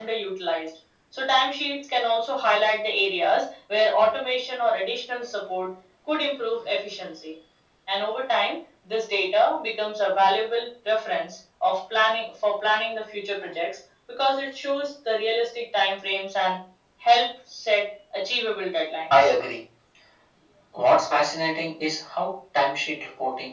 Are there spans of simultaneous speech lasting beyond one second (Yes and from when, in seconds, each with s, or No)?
No